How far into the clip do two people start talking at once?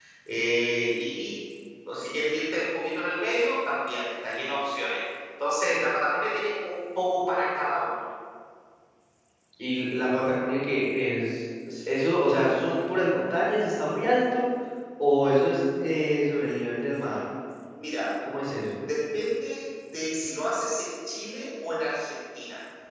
none

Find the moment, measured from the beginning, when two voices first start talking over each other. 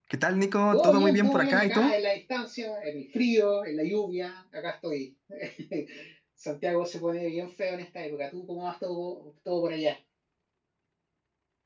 0.7 s

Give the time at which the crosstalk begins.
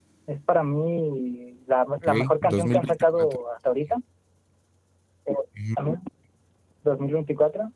2.0 s

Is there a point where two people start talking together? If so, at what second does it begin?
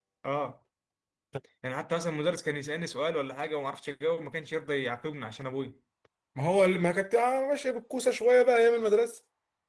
none

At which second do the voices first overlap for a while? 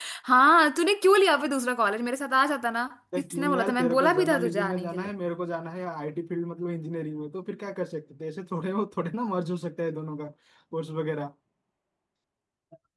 3.1 s

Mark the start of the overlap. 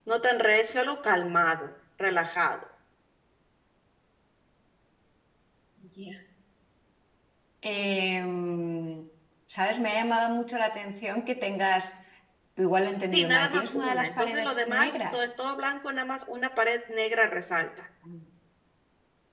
13.0 s

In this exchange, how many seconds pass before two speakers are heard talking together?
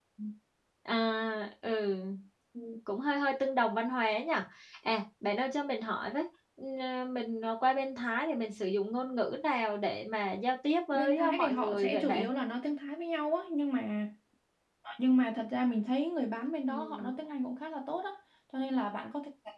10.9 s

